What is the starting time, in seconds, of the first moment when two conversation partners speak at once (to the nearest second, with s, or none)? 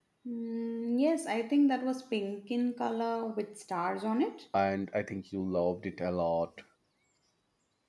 none